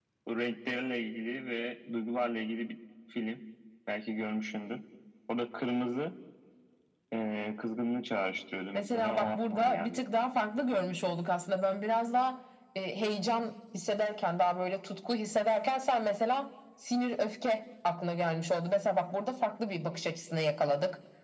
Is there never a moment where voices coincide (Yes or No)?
No